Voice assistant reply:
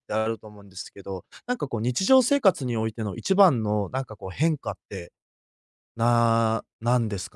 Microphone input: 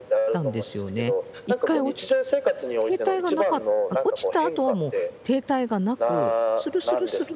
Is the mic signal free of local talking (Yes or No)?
No